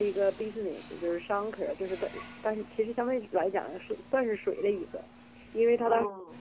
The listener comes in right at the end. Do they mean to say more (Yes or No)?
No